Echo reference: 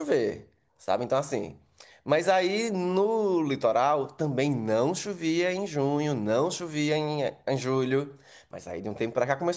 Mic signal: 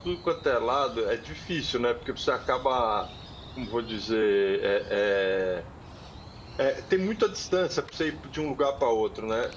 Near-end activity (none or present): present